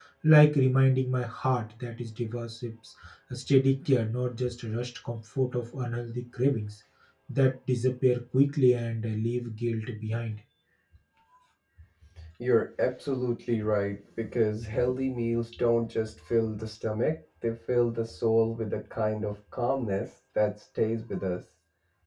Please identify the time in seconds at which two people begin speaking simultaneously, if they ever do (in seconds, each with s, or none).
none